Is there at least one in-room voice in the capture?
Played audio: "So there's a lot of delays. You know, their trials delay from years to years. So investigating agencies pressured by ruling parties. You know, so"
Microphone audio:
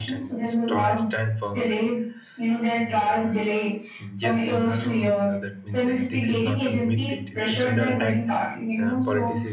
Yes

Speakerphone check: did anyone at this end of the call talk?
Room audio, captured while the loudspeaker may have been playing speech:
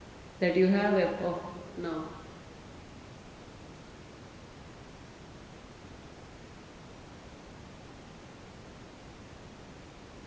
Yes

